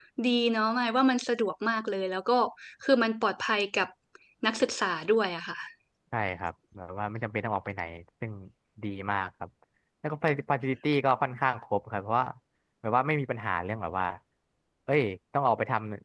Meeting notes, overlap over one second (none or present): none